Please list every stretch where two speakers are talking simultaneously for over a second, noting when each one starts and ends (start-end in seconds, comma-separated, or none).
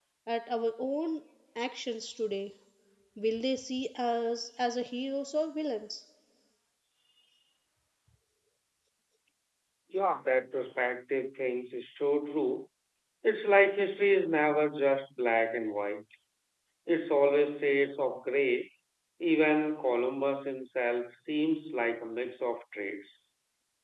none